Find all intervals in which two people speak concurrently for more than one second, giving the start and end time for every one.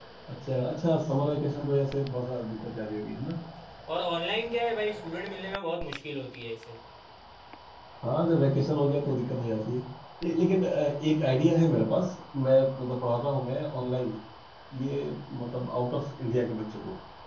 none

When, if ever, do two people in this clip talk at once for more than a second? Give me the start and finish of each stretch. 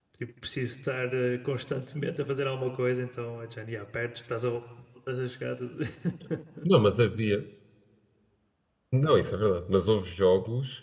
none

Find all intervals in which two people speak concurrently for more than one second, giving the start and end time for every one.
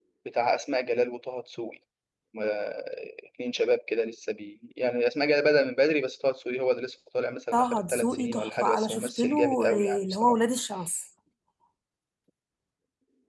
7.5-10.4

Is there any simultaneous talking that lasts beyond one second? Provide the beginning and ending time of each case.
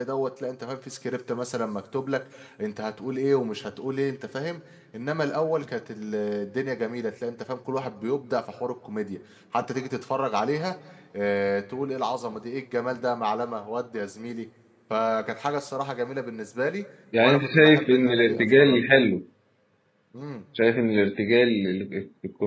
17.2-18.8

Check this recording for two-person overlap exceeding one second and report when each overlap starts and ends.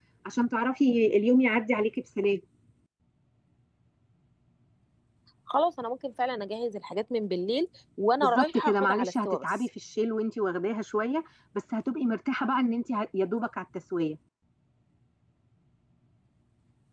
8.2-9.4

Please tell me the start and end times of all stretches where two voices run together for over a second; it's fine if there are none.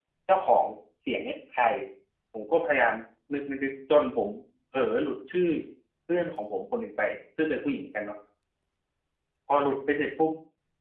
none

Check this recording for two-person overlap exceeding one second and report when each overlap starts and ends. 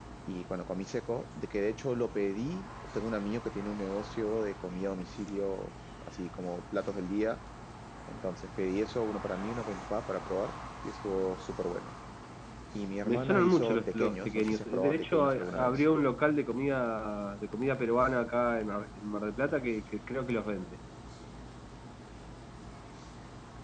13.0-15.8

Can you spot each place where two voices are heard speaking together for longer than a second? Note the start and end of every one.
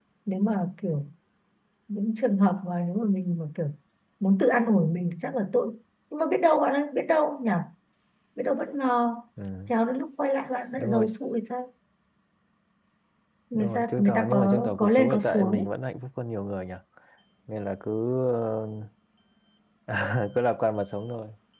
13.5-15.7

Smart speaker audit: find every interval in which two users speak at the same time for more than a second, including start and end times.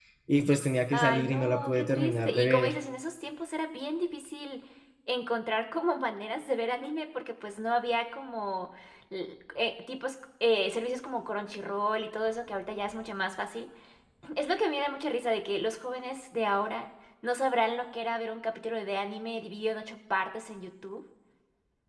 0.9-2.7

